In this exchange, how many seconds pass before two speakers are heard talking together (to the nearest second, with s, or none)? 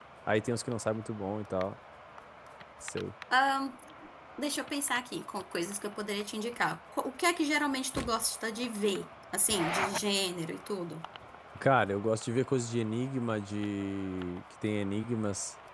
none